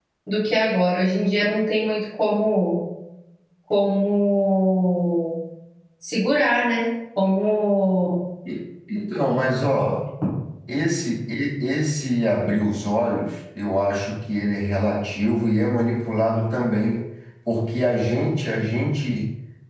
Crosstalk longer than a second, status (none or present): none